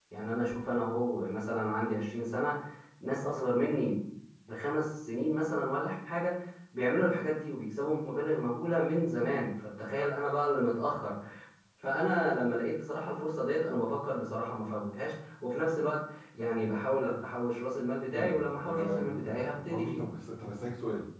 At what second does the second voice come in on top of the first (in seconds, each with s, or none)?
18.1 s